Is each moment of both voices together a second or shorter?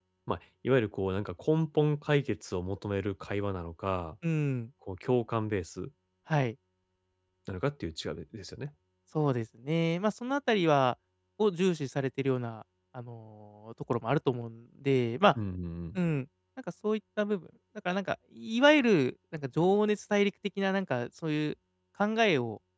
Yes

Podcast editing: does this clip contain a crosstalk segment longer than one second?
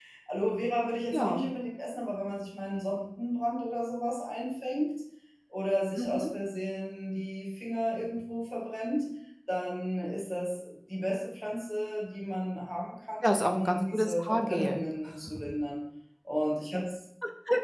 Yes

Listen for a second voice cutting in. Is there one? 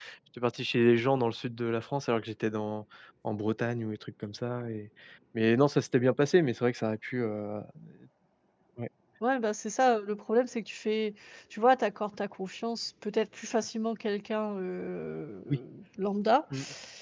No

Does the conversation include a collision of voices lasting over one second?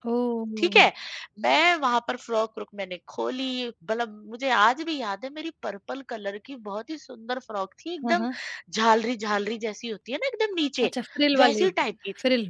No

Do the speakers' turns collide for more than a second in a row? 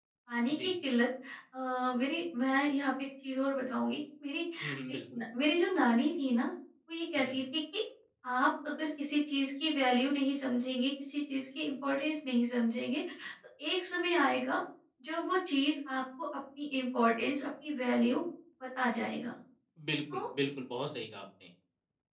No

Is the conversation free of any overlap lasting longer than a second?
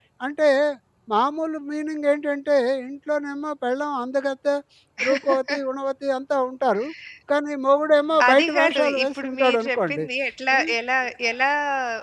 No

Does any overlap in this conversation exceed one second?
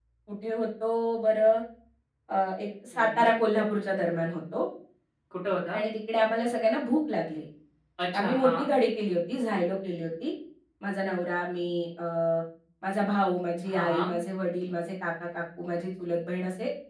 No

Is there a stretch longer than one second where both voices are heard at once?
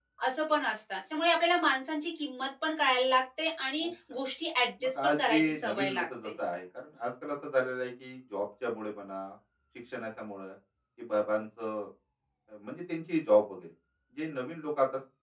Yes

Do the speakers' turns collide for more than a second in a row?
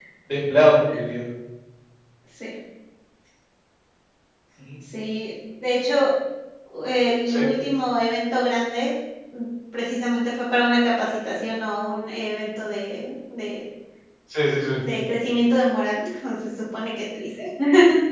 No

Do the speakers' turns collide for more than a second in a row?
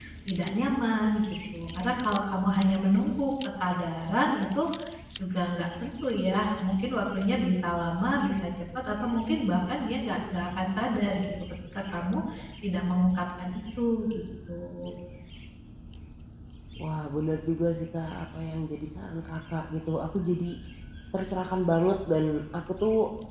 No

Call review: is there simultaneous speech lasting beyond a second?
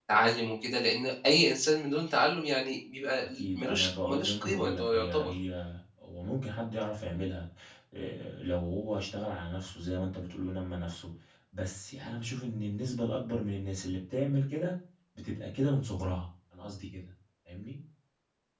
Yes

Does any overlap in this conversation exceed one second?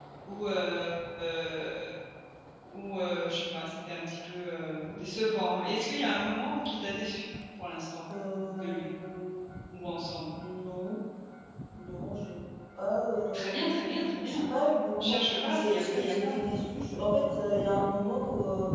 Yes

